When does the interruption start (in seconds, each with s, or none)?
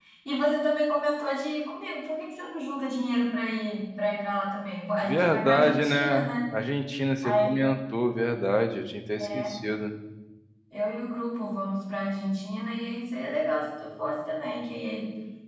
5.0 s